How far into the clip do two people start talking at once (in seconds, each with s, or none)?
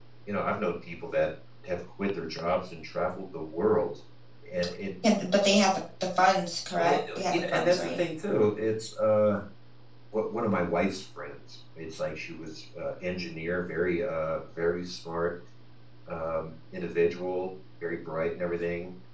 6.8 s